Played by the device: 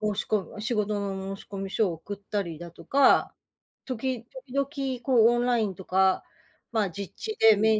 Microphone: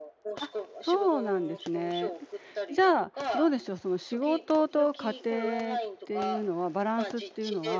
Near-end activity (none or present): present